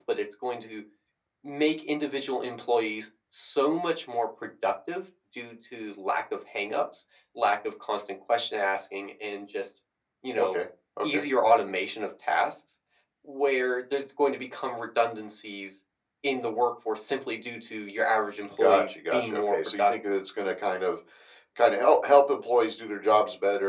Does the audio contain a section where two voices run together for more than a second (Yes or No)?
Yes